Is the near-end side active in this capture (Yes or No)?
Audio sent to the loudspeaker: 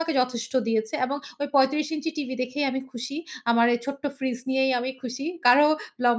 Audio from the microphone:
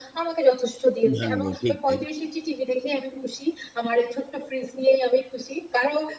Yes